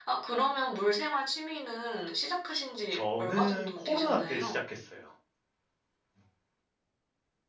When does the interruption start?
2.9 s

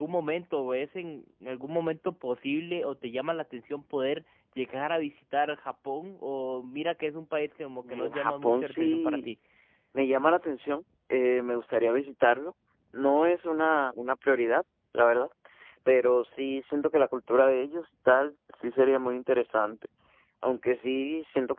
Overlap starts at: 7.8 s

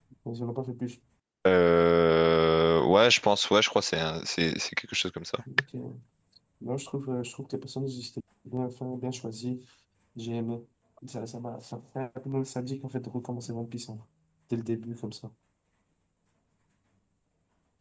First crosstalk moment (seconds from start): none

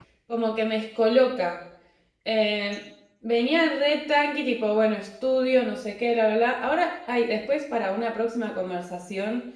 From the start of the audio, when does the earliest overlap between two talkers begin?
none

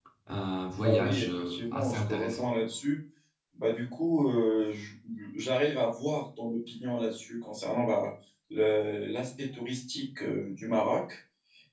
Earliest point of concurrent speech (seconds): 0.8 s

